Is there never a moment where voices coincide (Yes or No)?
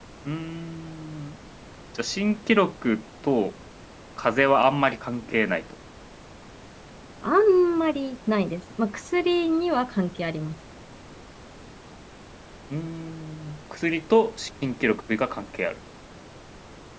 Yes